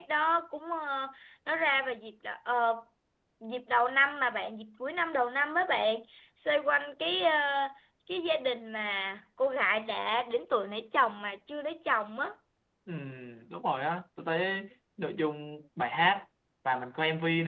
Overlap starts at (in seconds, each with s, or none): none